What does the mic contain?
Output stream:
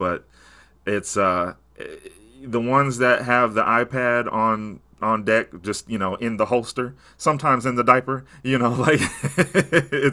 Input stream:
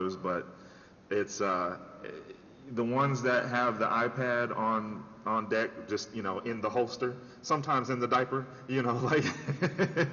echo only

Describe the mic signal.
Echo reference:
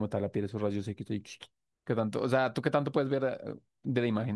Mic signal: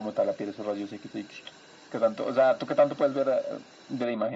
echo only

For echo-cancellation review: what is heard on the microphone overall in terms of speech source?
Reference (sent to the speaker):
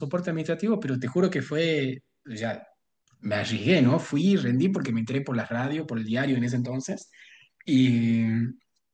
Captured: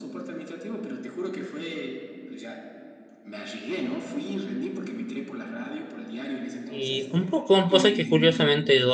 both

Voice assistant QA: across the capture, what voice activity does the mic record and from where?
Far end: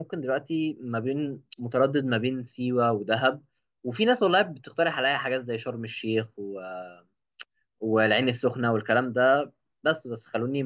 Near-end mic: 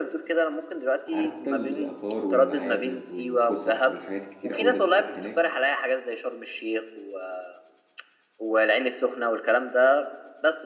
both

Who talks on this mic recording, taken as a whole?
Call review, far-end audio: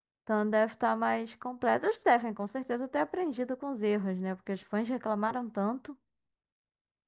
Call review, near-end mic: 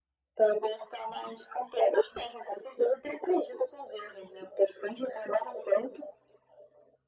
echo only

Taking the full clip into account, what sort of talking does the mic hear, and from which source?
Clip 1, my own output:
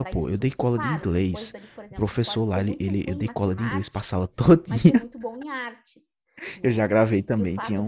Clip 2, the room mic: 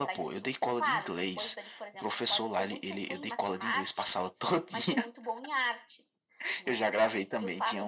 echo only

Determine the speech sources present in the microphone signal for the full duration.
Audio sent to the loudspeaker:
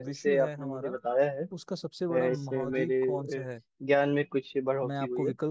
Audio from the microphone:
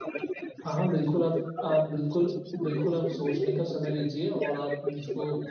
both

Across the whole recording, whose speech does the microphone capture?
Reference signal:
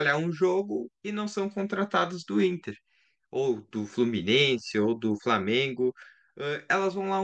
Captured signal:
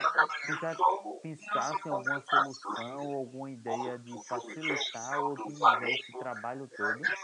both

